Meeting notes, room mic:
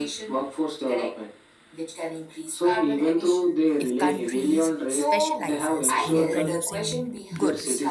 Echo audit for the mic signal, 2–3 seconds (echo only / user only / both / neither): echo only